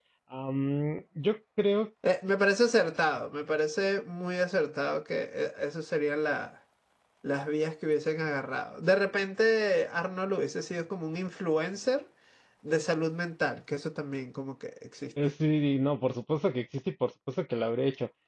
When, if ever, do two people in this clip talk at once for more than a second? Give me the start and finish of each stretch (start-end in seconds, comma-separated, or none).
none